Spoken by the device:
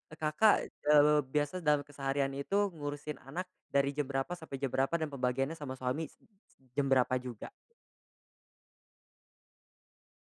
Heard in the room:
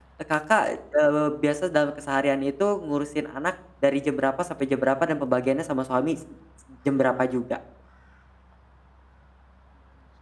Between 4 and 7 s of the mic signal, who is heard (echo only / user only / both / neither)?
echo only